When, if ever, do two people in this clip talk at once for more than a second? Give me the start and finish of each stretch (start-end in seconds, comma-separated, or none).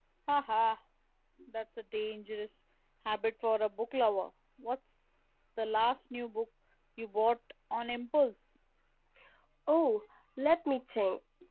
none